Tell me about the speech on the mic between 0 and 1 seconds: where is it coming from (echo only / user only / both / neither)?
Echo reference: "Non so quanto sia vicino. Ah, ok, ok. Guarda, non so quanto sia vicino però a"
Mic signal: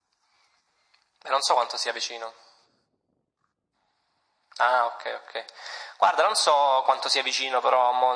neither